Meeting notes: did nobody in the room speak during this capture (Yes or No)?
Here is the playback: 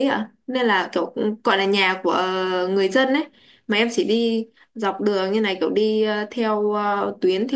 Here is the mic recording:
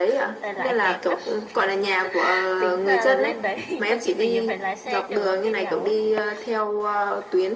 No